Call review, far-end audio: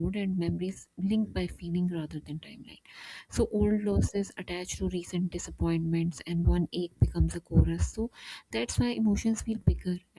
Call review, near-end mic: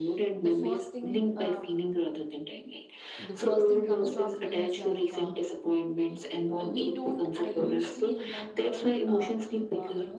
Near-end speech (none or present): present